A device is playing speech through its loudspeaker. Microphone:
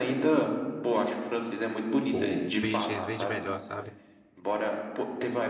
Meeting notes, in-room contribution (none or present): present